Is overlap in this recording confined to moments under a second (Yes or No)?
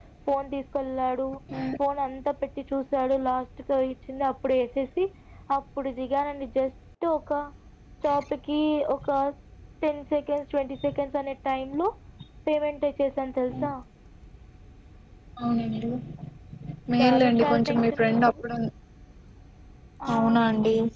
No